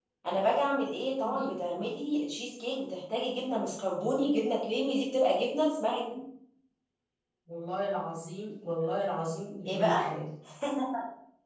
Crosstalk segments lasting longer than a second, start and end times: none

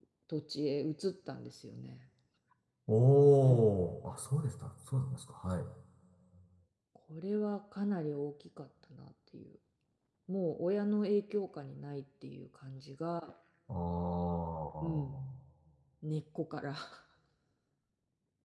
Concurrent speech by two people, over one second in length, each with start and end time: none

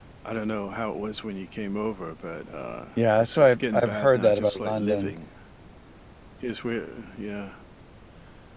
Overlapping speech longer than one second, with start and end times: 3.1-5.1

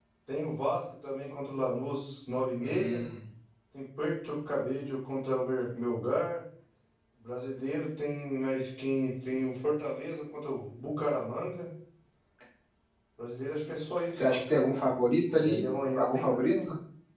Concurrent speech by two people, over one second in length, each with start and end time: 15.4-16.6

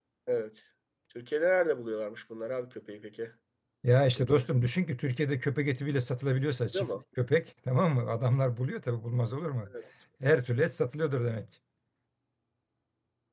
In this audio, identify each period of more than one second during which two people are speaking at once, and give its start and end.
none

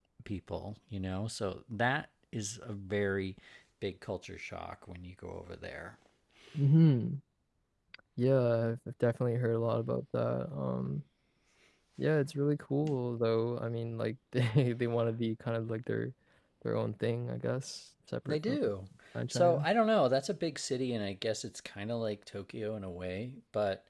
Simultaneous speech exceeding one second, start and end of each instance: none

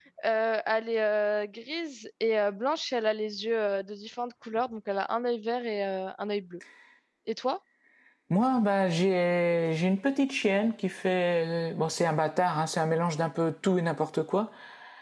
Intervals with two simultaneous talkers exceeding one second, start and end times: none

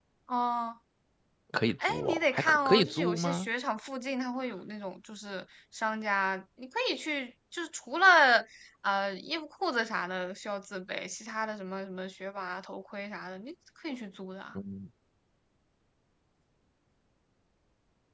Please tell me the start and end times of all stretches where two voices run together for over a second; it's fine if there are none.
1.9-3.5

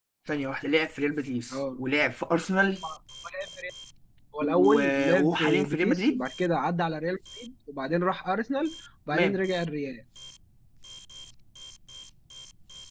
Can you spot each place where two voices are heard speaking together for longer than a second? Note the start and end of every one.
4.4-6.2

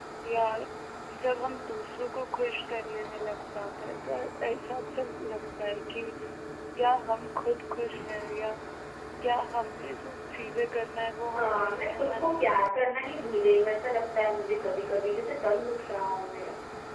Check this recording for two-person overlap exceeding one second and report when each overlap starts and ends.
11.3-12.5

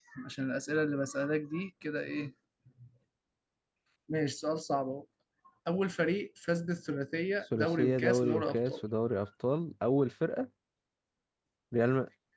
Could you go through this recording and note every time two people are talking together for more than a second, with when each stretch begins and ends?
7.6-8.8

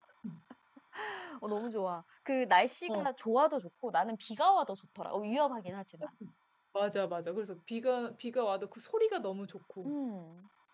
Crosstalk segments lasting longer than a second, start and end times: none

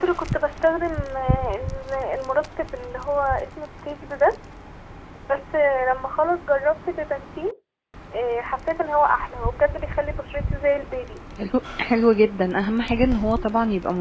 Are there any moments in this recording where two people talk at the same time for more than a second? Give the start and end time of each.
none

